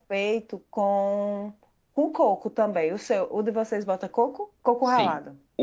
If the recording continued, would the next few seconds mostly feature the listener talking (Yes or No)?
Yes